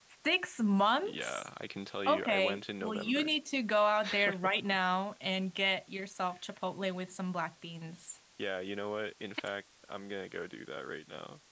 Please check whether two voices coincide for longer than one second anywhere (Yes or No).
Yes